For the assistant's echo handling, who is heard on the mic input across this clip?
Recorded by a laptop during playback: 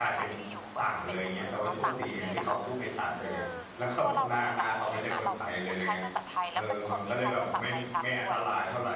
both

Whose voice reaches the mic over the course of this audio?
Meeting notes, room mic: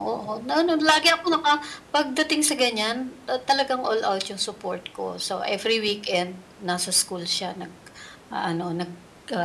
echo only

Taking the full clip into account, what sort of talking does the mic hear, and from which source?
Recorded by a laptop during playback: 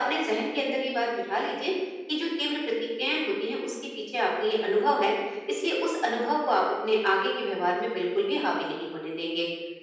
echo only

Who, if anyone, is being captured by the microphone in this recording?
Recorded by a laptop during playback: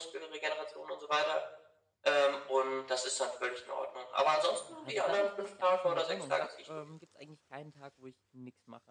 both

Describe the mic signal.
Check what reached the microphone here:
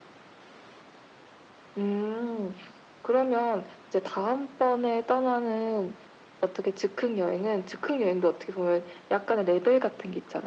echo only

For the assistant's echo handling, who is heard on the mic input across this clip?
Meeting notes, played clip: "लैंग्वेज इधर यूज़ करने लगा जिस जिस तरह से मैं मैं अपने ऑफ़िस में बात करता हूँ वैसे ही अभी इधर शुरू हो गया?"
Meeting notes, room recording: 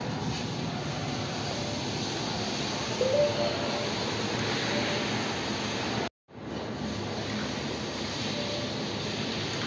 neither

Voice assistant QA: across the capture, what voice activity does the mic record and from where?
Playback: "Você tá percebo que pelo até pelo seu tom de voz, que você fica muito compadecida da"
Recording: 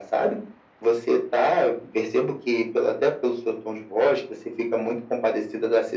echo only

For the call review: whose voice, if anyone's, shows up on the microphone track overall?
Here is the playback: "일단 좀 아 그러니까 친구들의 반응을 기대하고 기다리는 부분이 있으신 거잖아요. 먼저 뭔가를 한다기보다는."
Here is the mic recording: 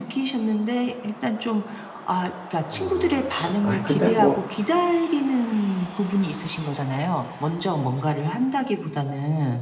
both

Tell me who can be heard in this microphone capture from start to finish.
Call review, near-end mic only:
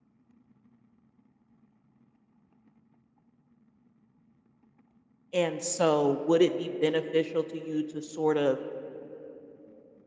user only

